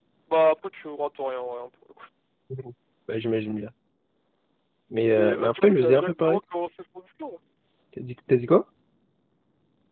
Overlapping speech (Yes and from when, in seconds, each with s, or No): Yes, from 5.2 s